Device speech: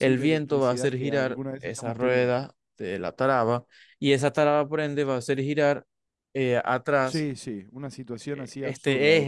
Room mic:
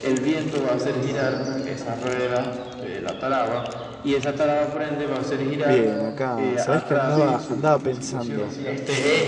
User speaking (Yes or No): Yes